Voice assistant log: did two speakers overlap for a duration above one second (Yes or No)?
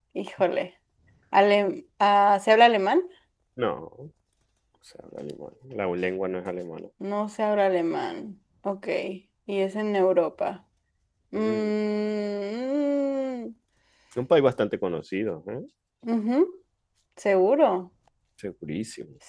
No